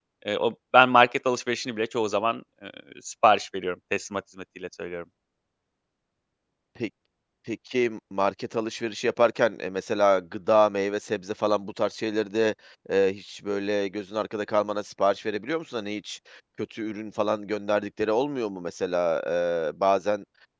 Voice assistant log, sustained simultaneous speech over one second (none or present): none